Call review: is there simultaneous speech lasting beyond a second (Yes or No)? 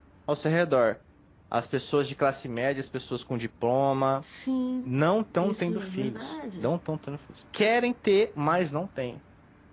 Yes